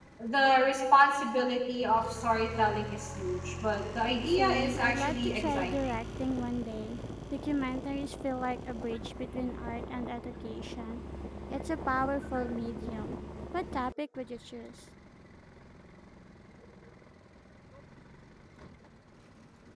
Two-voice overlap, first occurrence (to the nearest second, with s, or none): 4 s